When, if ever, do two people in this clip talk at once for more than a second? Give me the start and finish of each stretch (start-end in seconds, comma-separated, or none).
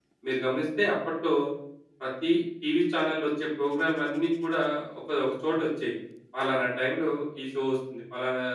none